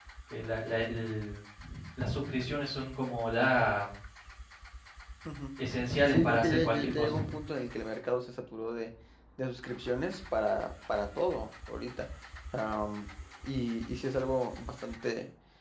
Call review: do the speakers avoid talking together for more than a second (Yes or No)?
No